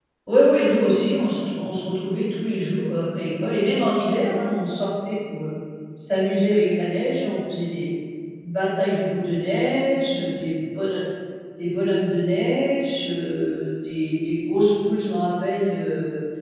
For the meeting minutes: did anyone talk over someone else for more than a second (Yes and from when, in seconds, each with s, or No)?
No